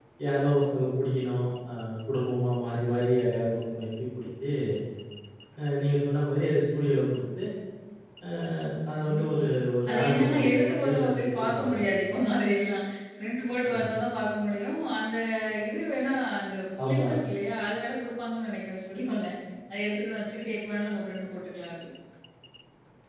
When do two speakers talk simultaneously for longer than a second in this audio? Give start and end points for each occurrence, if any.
9.9-11.7

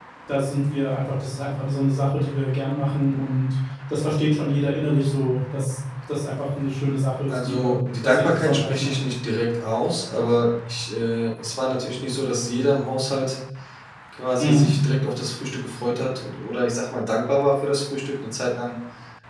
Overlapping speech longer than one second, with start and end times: 7.3-8.9

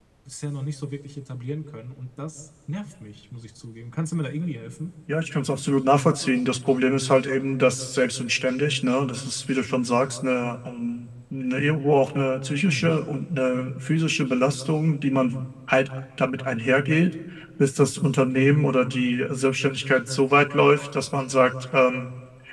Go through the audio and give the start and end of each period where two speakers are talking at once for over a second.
none

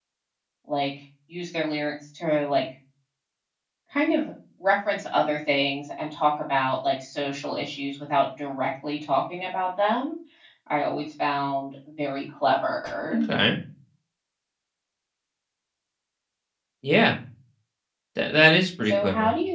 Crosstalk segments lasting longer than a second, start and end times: none

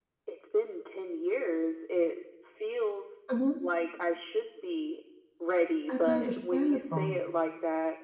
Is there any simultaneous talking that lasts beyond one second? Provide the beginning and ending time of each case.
5.9-7.2

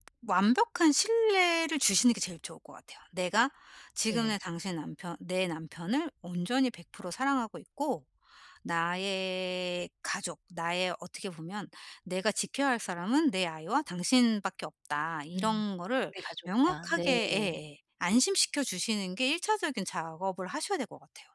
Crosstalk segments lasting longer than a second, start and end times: 16.1-17.6

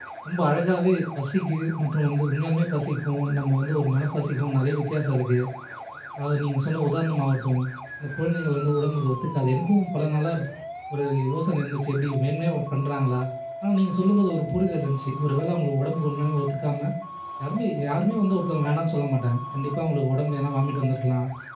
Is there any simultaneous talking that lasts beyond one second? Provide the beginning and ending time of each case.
none

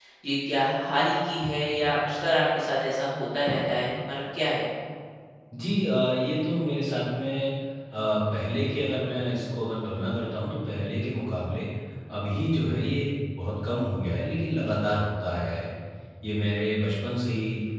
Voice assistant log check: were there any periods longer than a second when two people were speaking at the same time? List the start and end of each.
none

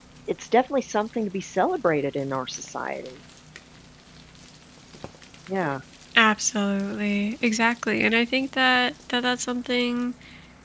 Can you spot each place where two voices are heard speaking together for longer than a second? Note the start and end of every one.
none

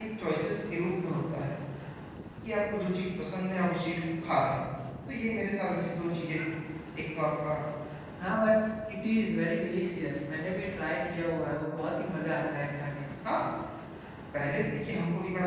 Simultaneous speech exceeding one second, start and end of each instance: none

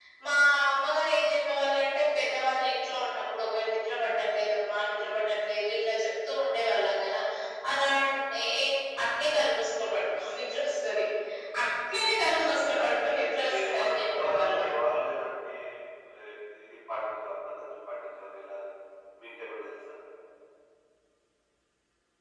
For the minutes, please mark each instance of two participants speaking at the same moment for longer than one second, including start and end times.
13.2-14.6

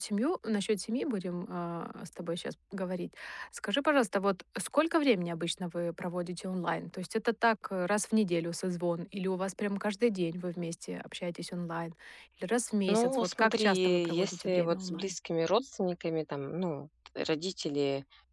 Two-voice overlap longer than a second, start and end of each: 12.9-15.1

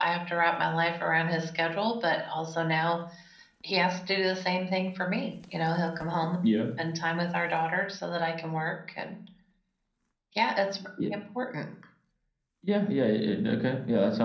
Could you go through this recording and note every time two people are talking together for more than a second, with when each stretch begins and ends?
none

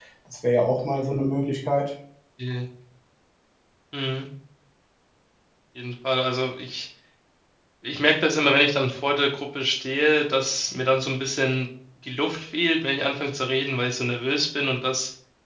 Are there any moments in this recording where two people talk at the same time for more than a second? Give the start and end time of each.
none

